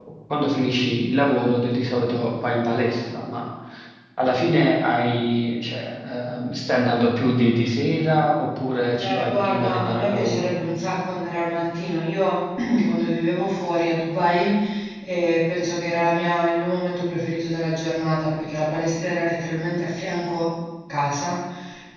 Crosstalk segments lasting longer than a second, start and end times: 9.0-10.5

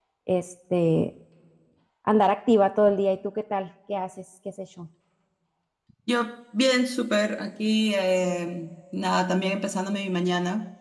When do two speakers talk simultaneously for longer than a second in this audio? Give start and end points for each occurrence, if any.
none

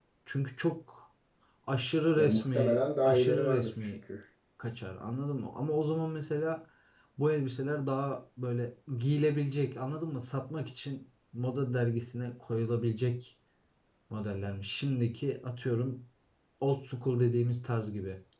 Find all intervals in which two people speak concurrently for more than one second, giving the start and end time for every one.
2.2-4.0

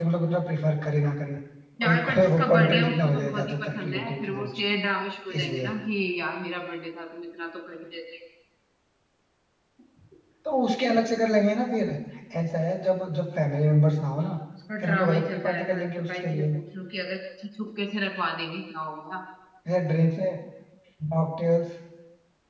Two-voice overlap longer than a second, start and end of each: 1.8-4.6, 14.8-16.4

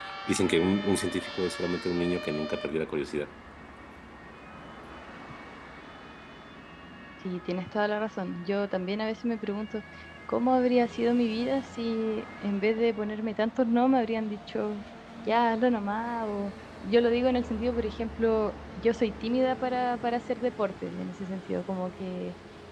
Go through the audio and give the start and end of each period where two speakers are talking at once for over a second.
none

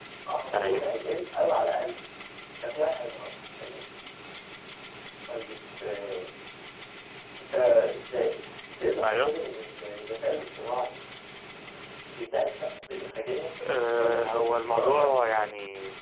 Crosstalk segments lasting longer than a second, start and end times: 14.0-15.5

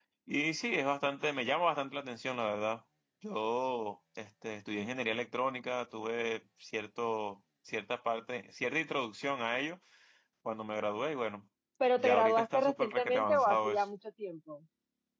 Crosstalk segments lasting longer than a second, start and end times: 12.0-13.8

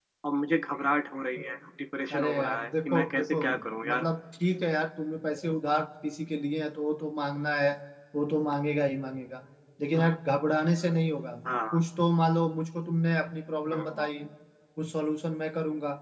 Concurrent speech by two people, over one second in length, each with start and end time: 2.1-3.4

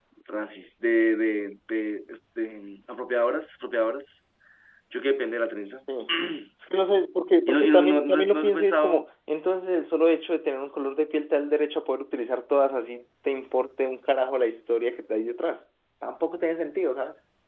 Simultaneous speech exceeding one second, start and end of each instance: 7.5-9.1

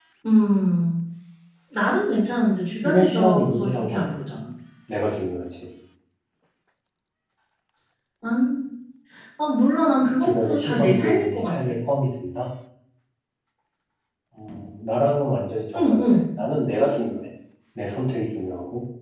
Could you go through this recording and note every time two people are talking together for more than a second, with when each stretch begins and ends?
2.9-4.1, 10.2-11.7

